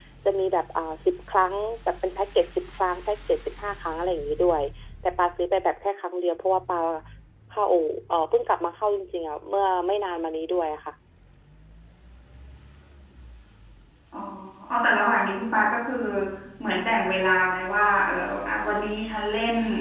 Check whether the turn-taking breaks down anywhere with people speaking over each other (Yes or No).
No